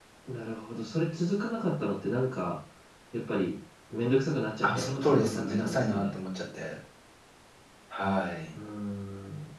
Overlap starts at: 5 s

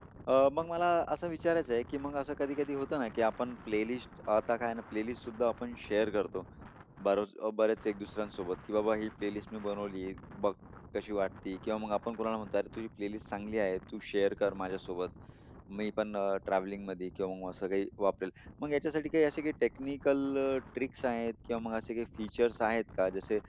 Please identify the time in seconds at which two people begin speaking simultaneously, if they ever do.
none

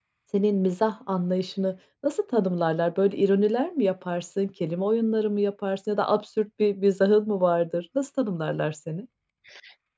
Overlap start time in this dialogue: none

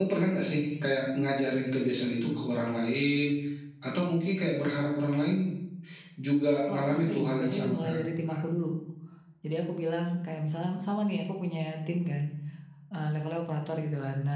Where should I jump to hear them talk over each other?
7 s

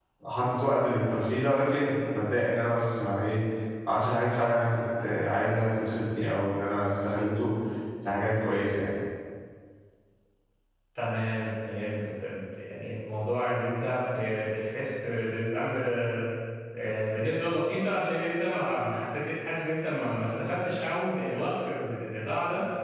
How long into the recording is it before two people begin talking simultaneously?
none

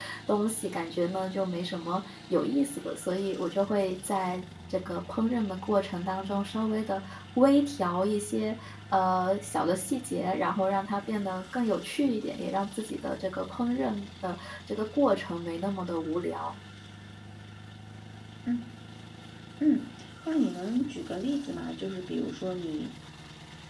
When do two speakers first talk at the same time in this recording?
none

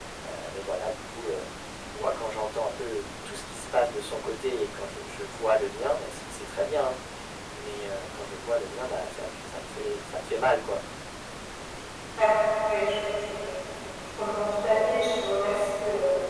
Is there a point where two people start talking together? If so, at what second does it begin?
none

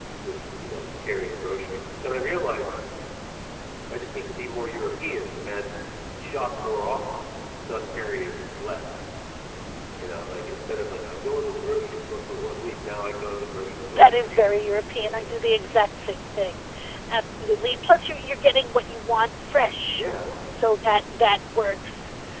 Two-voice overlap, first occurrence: 14 s

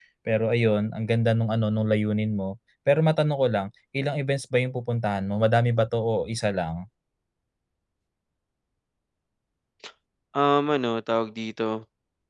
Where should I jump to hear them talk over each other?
none

